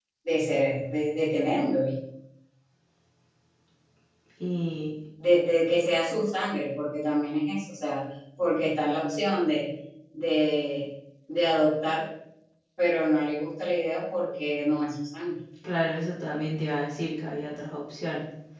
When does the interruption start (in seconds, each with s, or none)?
none